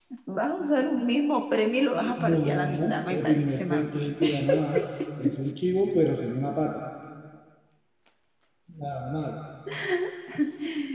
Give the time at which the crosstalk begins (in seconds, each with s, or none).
2.0 s